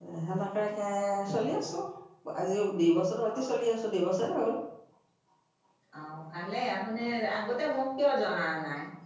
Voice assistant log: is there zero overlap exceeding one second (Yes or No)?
Yes